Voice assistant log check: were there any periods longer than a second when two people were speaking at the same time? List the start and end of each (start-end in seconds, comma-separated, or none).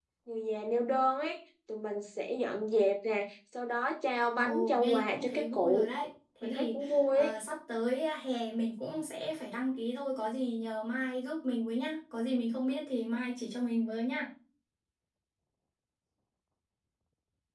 4.4-5.9